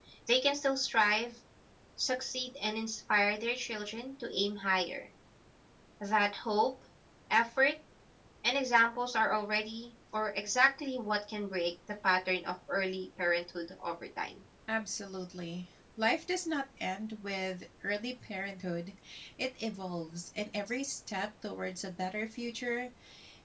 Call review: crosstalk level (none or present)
none